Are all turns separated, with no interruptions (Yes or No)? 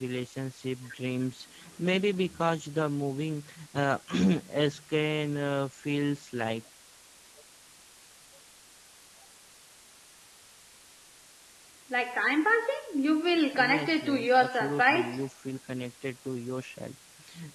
No